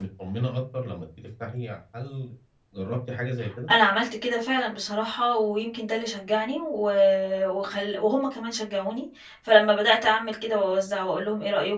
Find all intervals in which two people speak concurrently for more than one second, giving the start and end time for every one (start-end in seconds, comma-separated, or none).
none